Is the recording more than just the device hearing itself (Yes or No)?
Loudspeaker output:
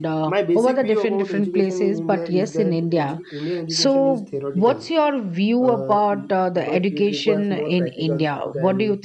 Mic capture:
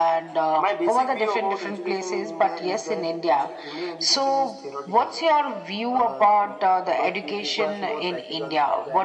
No